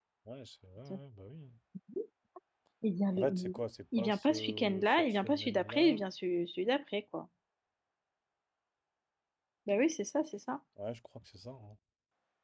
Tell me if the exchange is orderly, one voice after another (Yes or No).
No